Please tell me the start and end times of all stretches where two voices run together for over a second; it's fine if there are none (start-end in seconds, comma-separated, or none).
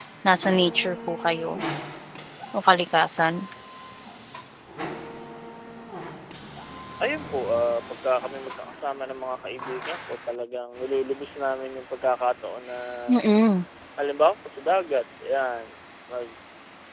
none